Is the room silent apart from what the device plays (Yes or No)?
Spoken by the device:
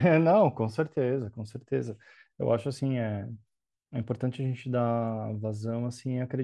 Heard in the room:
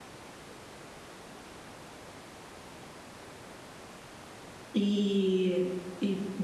No